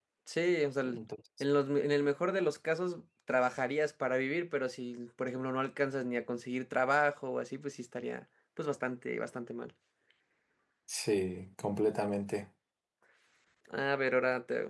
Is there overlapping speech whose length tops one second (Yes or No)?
No